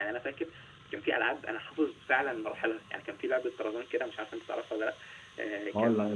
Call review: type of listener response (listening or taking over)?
taking over